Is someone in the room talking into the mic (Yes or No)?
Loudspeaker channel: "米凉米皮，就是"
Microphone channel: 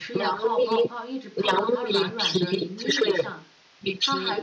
Yes